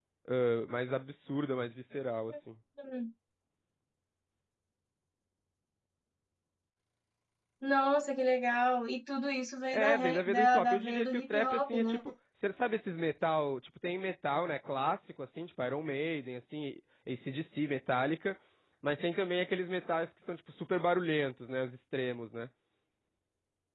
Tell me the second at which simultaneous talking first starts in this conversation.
9.7 s

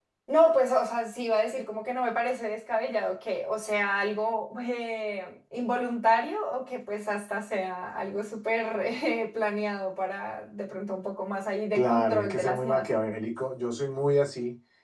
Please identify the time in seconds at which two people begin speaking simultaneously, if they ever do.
11.7 s

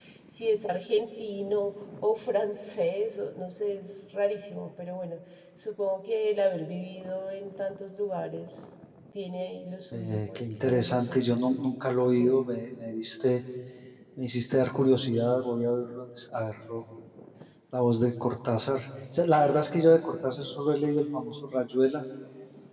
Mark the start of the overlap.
9.9 s

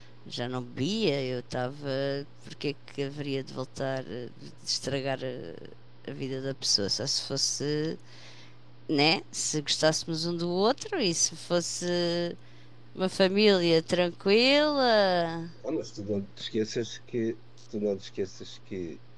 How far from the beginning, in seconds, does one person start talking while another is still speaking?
none

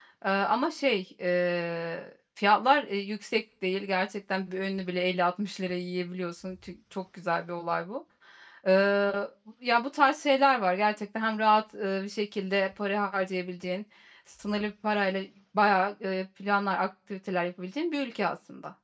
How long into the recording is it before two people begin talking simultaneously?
none

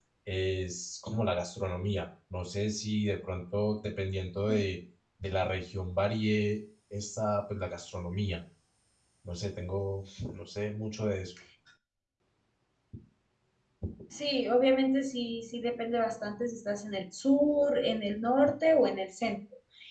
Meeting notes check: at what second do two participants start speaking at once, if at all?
none

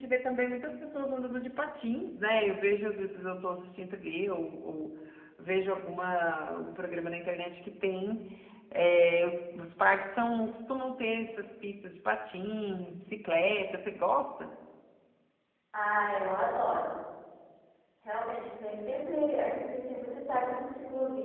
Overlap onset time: none

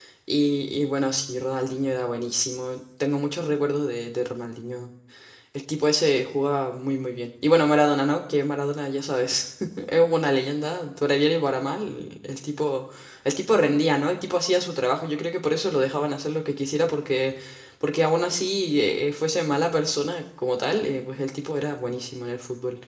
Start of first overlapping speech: none

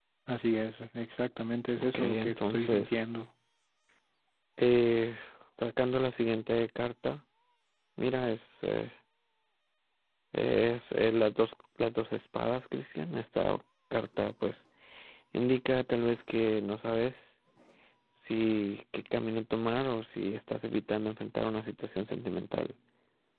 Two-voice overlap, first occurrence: 1.8 s

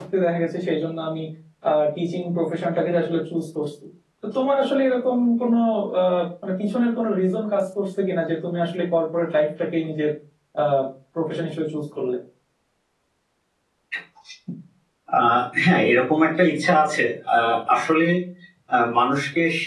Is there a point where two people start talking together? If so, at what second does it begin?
none

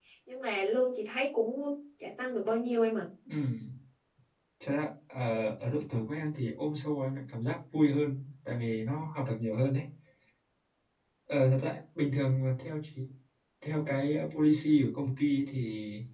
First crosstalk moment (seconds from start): none

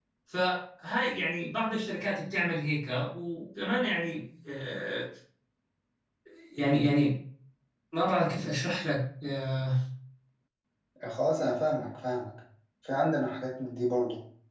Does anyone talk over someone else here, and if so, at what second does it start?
none

